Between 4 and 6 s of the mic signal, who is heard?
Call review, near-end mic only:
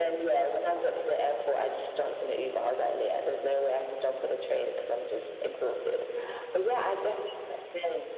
echo only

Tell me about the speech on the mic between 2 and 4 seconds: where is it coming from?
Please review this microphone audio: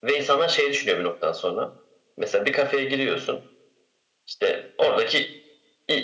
echo only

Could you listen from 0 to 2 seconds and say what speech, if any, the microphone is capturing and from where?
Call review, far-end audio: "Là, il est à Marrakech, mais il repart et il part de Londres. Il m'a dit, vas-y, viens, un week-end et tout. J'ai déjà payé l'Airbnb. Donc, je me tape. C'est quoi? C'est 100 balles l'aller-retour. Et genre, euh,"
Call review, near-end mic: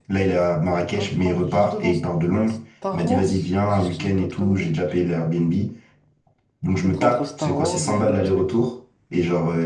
both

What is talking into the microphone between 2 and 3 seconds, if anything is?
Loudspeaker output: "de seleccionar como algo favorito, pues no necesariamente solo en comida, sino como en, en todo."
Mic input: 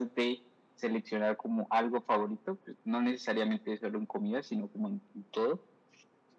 echo only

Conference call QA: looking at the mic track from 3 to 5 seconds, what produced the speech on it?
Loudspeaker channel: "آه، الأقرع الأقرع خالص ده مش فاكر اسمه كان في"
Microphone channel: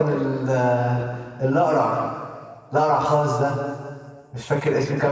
echo only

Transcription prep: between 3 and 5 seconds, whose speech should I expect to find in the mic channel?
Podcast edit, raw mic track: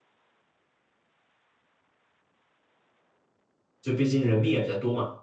user only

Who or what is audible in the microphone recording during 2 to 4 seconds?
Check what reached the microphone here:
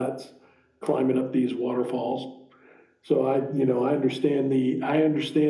echo only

